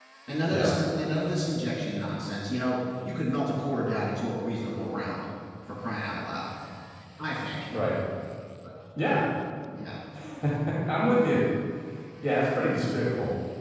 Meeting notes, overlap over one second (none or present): none